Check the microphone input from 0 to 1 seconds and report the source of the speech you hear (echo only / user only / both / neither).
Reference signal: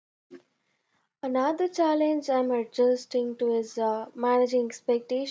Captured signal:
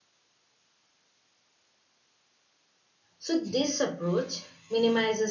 neither